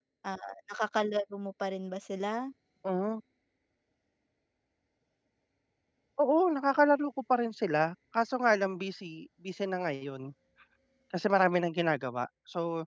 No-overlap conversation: Yes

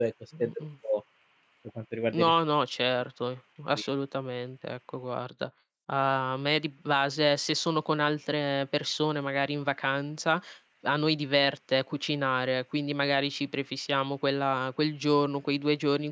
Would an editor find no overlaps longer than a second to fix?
Yes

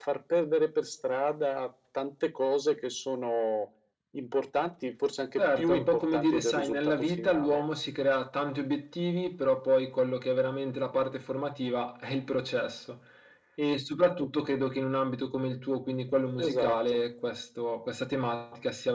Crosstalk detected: Yes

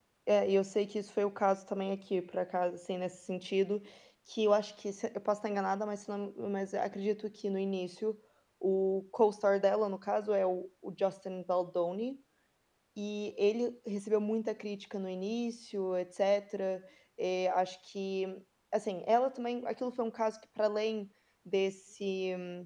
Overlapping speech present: No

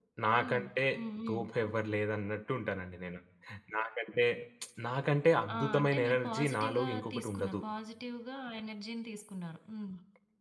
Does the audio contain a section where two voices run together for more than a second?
Yes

